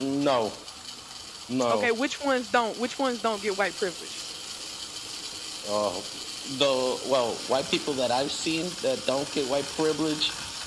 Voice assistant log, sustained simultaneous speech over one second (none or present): none